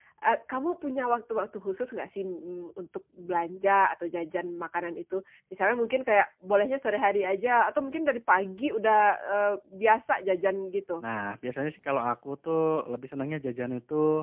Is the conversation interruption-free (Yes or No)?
Yes